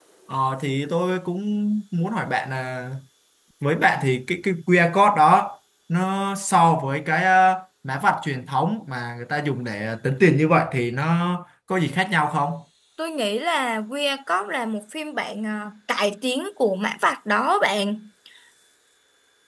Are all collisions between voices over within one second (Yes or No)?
Yes